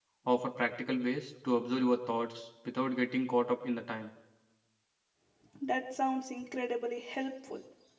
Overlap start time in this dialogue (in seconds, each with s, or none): none